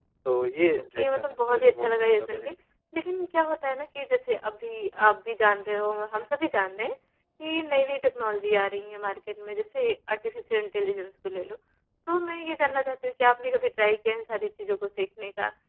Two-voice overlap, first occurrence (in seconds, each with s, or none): 1.0 s